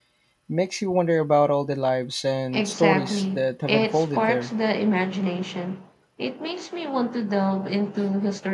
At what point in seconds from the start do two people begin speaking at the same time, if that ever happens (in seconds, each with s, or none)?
2.5 s